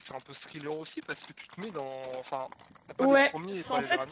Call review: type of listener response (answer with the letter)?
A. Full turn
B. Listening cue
A